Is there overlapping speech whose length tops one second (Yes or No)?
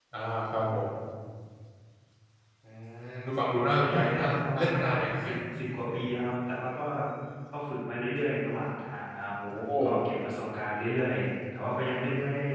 Yes